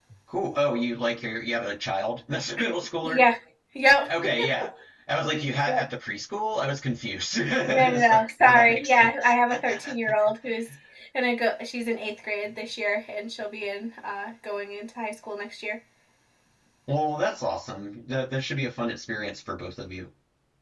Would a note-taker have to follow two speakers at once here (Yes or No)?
Yes